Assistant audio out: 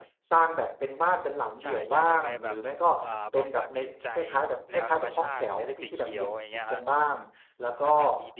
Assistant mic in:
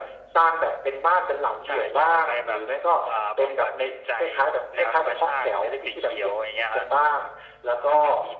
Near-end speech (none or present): none